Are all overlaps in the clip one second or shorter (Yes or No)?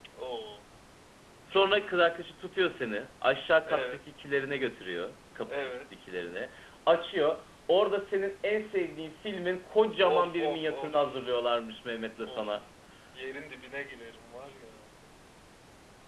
No